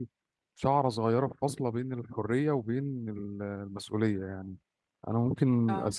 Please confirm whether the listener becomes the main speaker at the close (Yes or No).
No